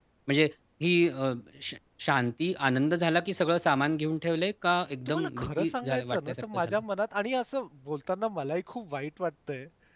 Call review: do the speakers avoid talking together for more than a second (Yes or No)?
No